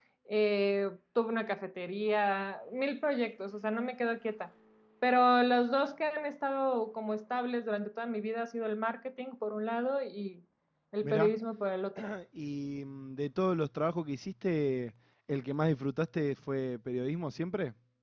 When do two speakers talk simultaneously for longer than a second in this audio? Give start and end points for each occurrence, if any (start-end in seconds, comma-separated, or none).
none